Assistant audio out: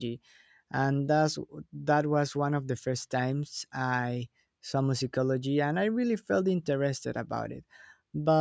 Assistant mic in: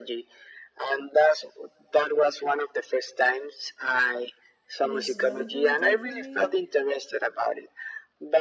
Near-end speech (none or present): present